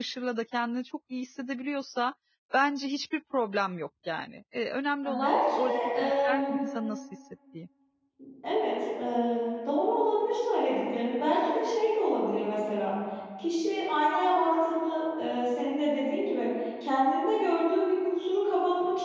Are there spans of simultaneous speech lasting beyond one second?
Yes, from 5.0 s

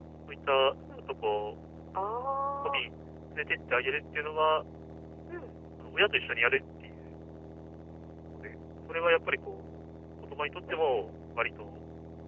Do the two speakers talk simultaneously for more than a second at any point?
No

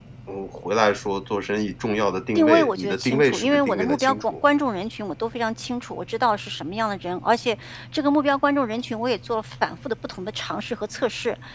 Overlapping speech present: Yes, from 2.4 s

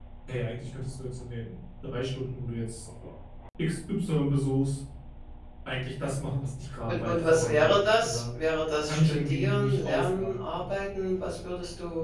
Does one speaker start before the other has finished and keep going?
Yes, from 6.9 s

